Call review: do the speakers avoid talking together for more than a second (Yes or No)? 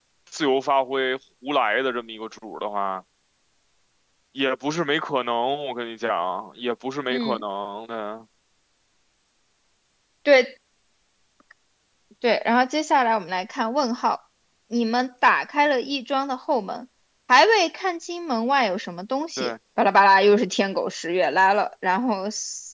Yes